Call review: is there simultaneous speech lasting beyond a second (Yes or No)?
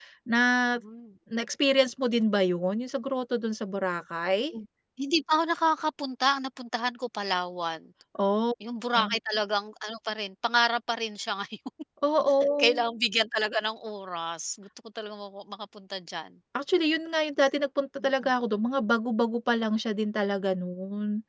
No